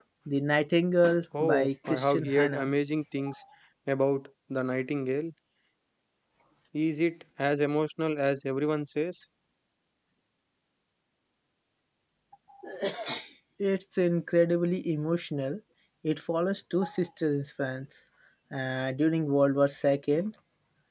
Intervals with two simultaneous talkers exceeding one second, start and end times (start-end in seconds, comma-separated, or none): 1.4-2.7